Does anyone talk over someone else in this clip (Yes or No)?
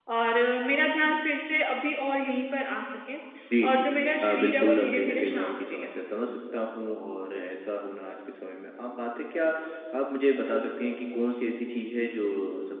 Yes